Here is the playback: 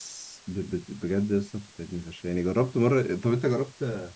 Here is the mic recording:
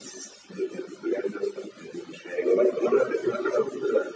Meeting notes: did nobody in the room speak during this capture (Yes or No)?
Yes